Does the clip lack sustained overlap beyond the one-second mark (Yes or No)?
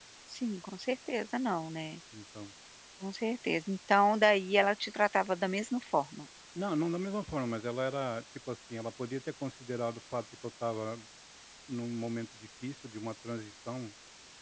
Yes